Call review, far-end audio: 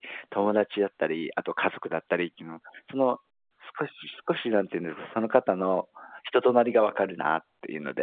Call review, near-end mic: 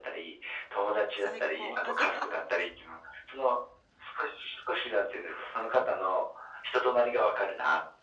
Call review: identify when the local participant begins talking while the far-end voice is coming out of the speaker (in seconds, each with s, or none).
1.1 s